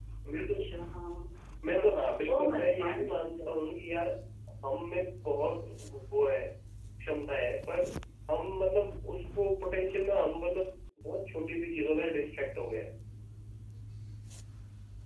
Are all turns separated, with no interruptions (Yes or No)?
No